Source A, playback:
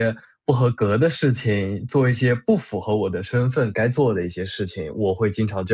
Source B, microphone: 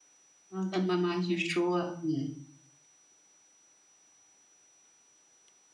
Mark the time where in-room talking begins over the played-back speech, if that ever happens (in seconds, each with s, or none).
0.5 s